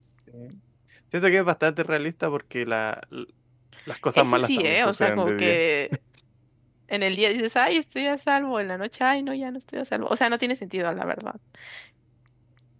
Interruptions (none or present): present